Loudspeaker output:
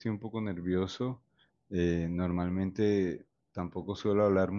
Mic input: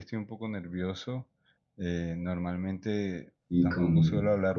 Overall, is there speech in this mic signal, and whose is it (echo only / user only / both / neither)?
both